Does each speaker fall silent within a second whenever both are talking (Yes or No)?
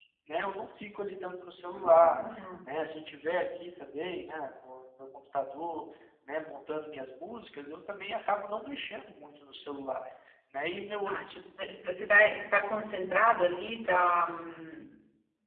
Yes